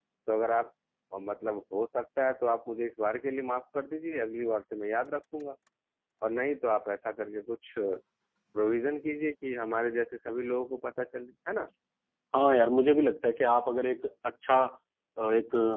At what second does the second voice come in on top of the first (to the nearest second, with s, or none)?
none